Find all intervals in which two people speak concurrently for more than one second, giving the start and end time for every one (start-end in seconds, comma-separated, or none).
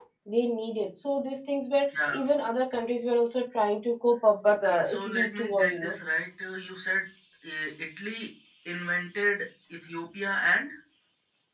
4.6-5.9